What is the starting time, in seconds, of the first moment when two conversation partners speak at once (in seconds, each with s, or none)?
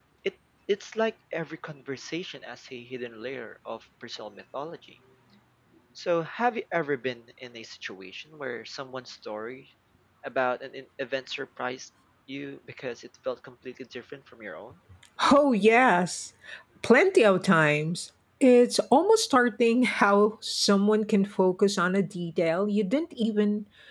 none